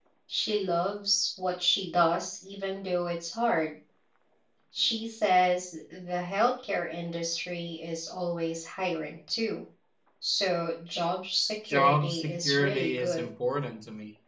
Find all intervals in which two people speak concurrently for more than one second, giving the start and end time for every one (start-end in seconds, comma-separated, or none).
11.7-13.3